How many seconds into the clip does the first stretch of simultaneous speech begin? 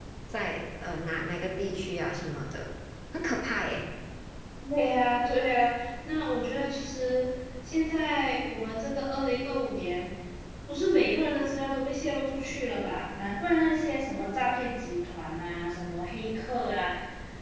none

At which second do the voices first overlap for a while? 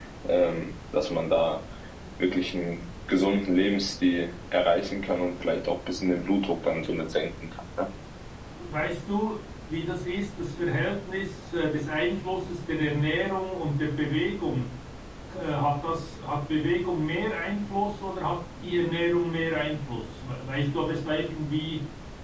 none

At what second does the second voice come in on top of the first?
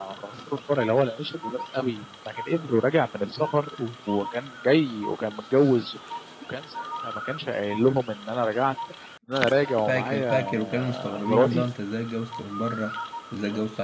9.9 s

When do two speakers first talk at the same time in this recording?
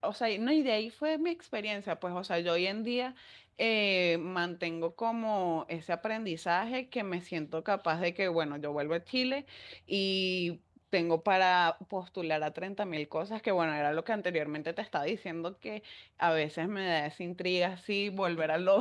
none

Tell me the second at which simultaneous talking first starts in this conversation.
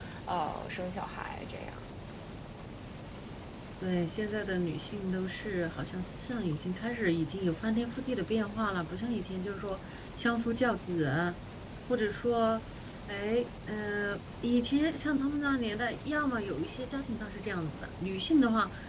none

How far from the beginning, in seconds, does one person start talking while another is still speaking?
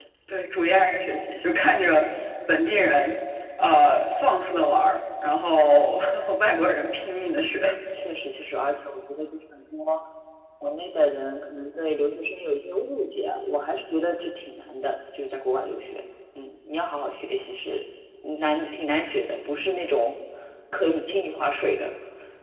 none

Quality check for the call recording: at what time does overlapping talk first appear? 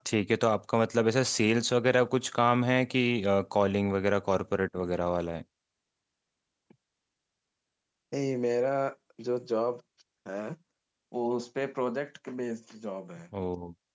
none

